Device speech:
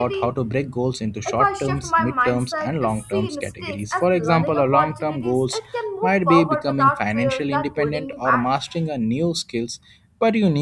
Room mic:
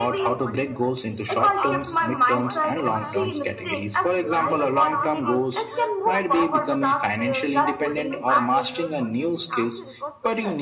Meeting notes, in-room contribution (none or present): present